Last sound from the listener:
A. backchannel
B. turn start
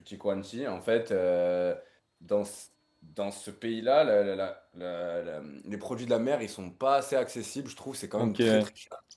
A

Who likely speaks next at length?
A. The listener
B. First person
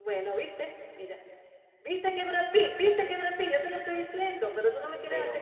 A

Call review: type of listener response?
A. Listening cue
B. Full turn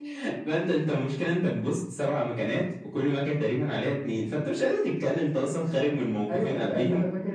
B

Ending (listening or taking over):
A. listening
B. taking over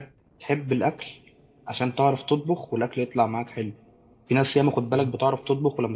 A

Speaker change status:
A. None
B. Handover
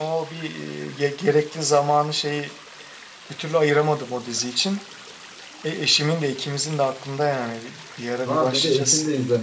B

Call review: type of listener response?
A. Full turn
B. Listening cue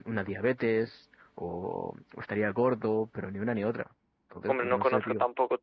A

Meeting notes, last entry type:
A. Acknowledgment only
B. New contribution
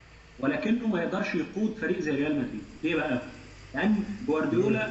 A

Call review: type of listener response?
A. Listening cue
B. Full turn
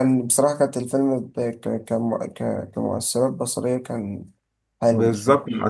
B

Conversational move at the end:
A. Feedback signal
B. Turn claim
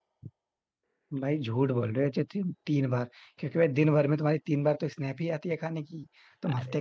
A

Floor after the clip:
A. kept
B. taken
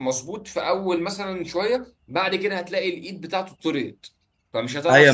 B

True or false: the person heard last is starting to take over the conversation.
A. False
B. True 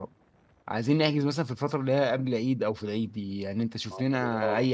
A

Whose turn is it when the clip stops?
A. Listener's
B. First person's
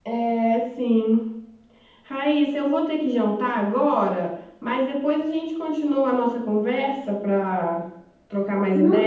A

